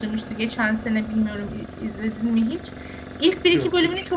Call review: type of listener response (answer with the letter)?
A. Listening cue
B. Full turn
A